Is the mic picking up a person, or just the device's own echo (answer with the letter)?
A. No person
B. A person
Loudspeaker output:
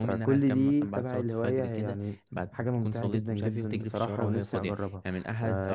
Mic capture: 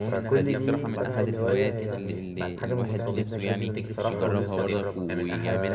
B